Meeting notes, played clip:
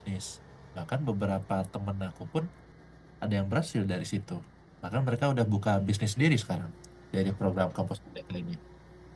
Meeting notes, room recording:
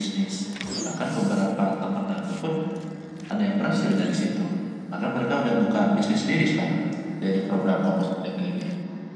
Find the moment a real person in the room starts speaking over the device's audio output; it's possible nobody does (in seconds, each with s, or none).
none